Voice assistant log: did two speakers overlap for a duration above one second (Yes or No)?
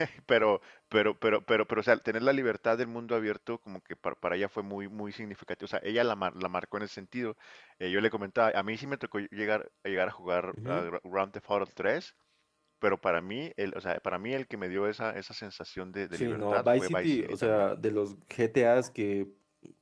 Yes